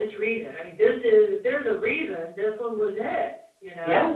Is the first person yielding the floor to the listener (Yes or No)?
Yes